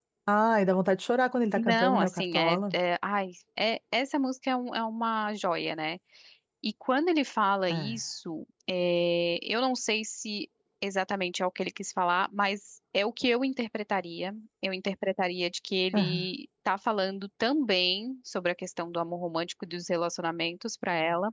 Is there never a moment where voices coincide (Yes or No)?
No